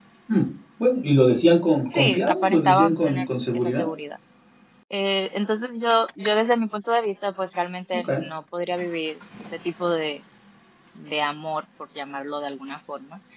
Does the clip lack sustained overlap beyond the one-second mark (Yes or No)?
No